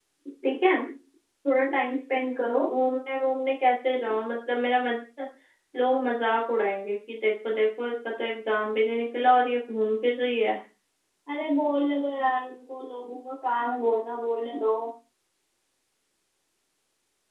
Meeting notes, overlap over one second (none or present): none